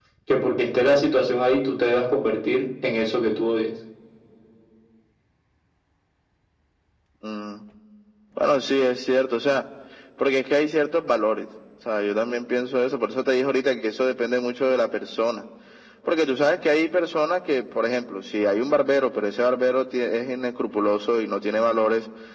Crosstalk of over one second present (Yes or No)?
No